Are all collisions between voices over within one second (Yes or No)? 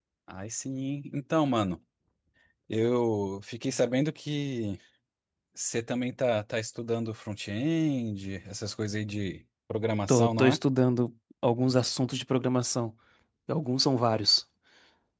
Yes